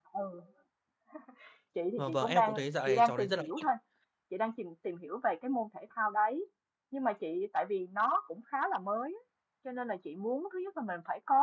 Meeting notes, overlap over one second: present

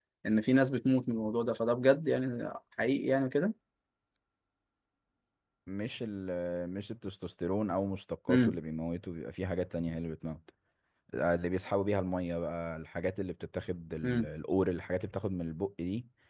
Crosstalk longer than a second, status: none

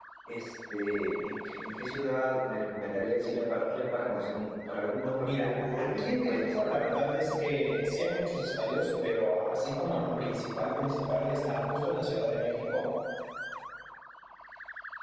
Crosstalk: present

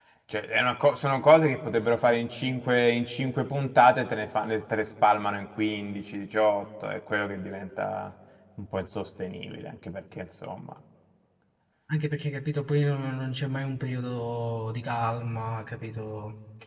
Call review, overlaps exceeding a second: none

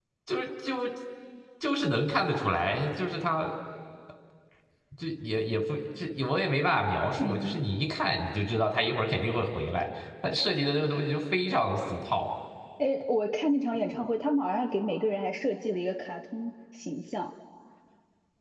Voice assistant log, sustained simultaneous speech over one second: none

